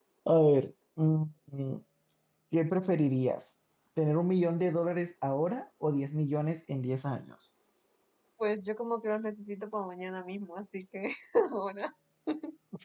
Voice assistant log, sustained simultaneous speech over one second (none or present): none